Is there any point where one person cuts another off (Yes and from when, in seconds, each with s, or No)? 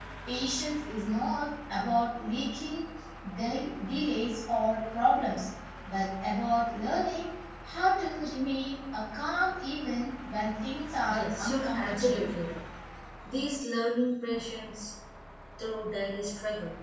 Yes, from 11.1 s